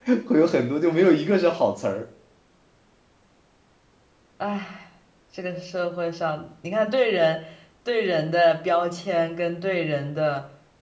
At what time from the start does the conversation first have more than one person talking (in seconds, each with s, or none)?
none